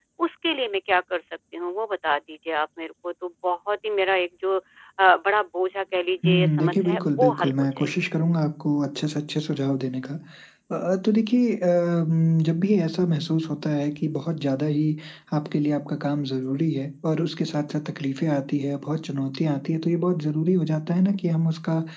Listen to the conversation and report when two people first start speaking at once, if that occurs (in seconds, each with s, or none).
6.2 s